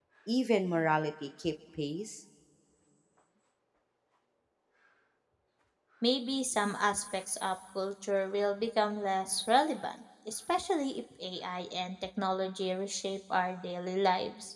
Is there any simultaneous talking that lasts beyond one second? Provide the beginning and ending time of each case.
none

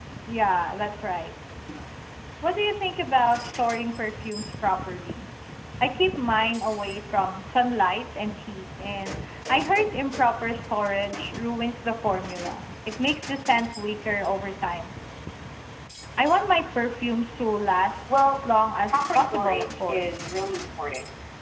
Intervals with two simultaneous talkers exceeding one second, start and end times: 18.9-20.2

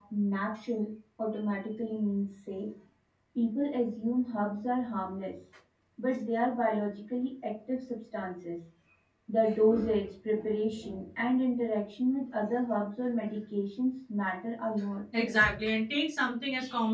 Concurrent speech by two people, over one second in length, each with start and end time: none

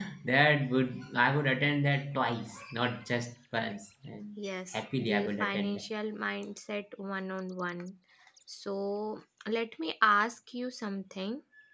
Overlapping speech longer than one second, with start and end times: 4.4-5.9

